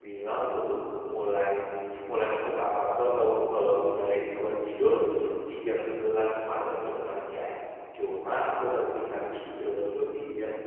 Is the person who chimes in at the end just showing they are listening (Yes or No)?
Yes